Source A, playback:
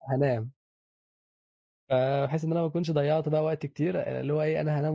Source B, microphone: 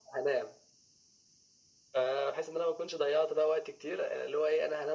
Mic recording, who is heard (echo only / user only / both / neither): echo only